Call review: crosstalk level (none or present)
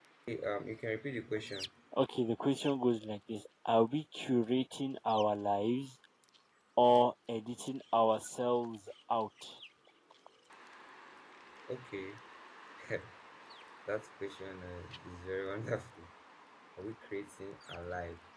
none